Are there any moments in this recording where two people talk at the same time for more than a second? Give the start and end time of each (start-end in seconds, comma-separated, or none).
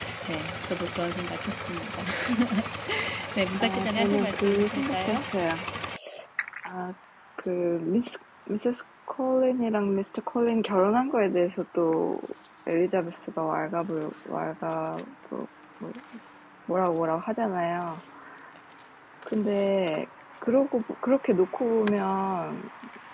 3.6-5.2